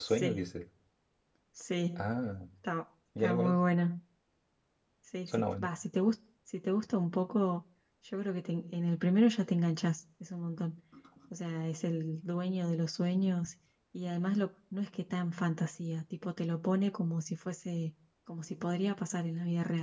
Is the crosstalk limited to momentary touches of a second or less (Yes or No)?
Yes